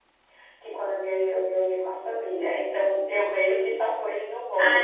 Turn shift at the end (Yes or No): Yes